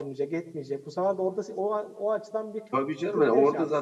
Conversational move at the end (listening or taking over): taking over